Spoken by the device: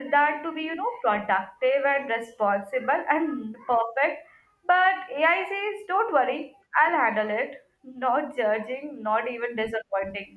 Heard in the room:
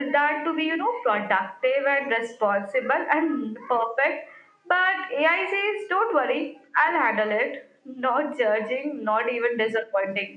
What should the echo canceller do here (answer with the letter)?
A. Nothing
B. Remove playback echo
B